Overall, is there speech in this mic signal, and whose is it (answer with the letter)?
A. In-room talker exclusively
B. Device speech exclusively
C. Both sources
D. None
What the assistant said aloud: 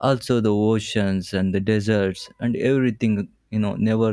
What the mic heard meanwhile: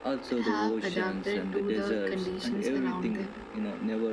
C